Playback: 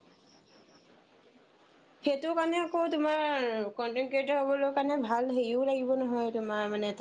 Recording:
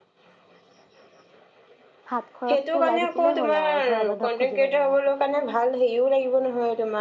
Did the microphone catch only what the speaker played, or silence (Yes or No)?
No